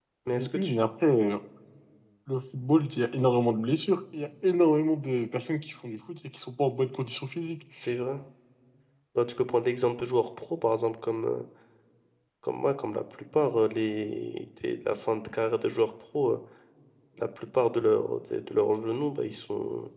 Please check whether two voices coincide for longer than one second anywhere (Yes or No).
No